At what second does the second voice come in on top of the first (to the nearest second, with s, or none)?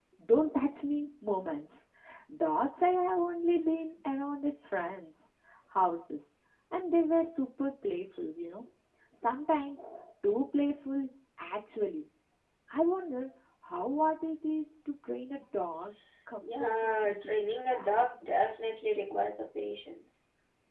16 s